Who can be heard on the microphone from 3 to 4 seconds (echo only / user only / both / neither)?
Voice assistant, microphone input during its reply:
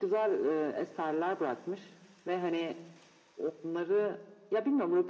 echo only